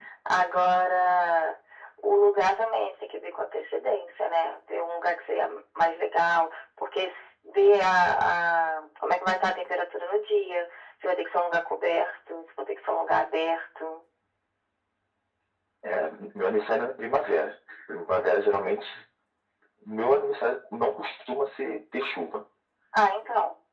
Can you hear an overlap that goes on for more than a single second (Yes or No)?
No